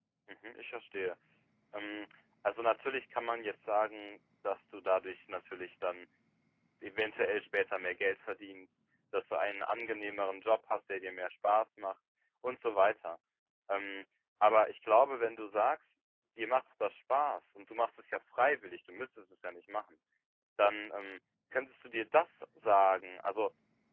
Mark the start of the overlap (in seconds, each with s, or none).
none